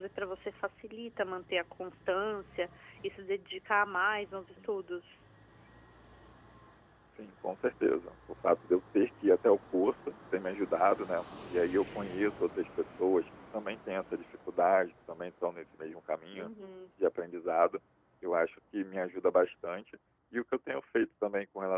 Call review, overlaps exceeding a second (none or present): none